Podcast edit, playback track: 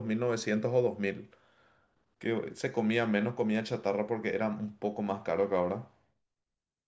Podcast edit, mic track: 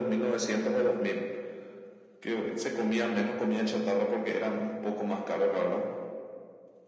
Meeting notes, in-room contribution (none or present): none